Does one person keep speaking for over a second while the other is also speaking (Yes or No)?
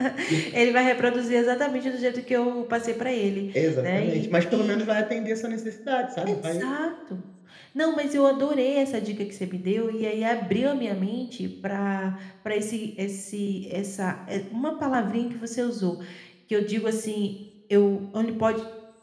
Yes